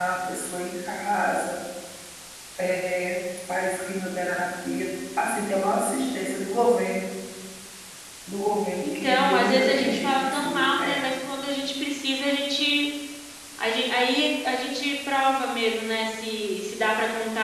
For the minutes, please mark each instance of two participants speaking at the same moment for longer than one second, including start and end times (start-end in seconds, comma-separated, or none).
8.8-11.0